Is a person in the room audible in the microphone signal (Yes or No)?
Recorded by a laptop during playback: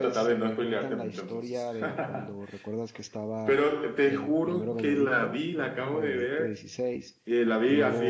Yes